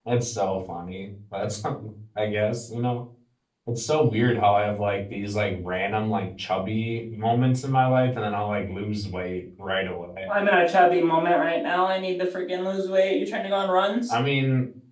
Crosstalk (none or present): none